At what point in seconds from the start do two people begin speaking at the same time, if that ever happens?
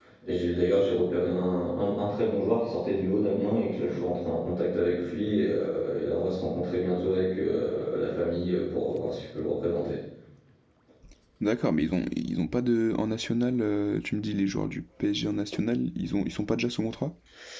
none

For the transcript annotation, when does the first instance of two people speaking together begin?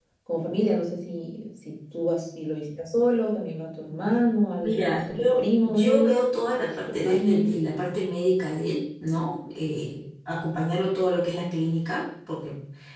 4.6 s

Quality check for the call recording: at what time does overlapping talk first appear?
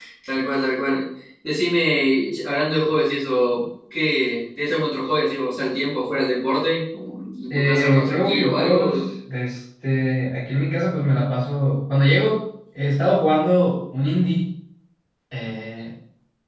7.5 s

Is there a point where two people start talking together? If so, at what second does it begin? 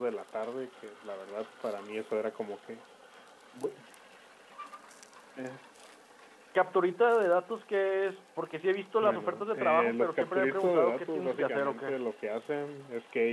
9.0 s

